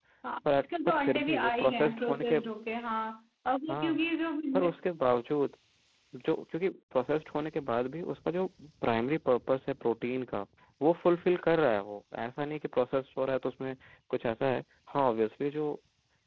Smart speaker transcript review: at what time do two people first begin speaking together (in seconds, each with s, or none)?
0.6 s